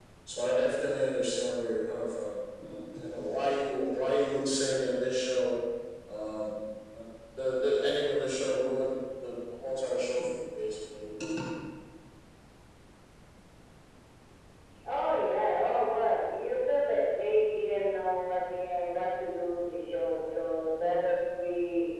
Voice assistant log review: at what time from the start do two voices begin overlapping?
none

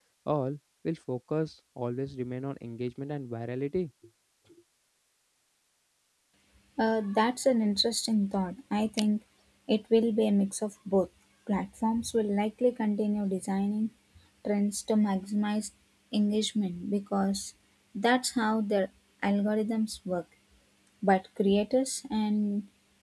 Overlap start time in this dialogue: none

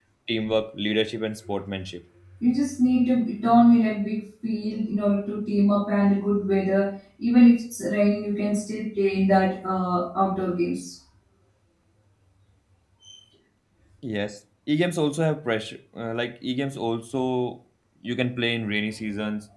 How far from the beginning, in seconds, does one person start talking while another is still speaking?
none

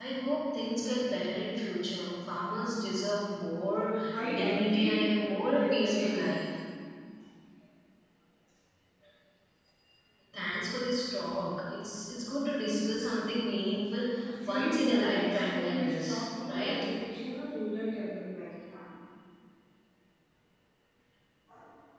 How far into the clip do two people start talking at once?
4.3 s

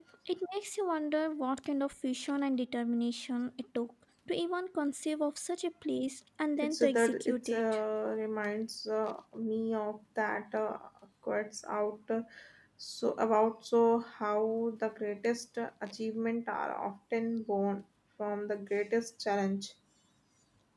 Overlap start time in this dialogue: 6.6 s

